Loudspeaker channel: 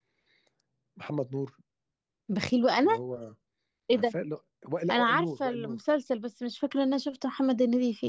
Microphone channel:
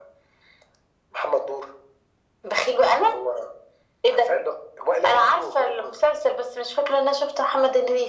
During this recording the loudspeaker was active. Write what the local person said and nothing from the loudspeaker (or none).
none